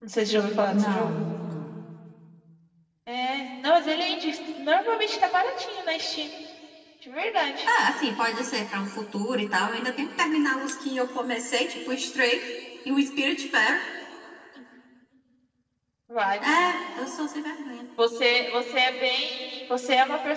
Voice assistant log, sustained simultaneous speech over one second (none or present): none